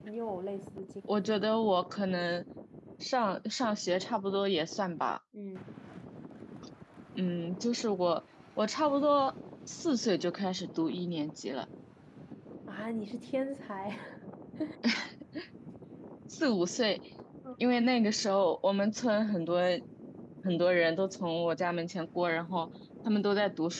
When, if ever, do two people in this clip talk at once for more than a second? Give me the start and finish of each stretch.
none

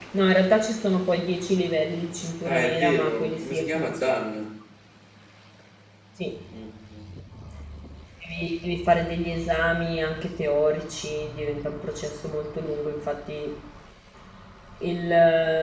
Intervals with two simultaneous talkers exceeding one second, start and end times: 2.4-4.0

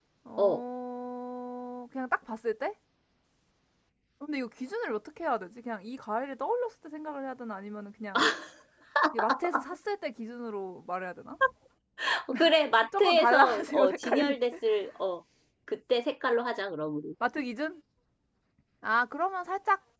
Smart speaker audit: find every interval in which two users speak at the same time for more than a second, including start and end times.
13.0-14.4

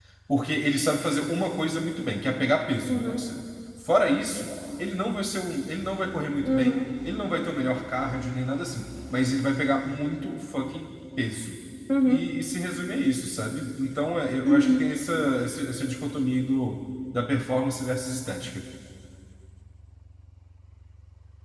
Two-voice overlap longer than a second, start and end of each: none

